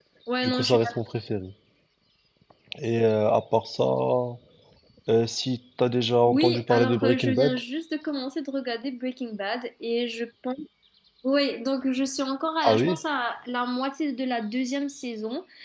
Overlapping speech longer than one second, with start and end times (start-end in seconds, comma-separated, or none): 6.2-7.6